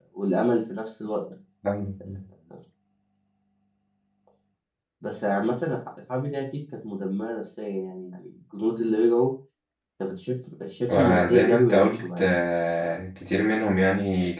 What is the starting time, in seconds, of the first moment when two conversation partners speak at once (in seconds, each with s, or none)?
10.9 s